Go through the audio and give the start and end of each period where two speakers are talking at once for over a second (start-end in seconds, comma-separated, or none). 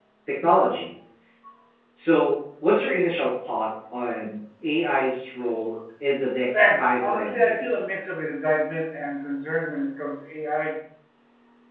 6.5-7.8